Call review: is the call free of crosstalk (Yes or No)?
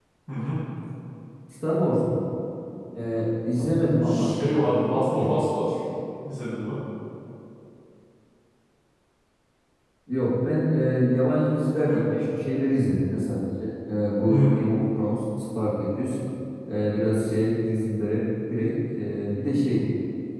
No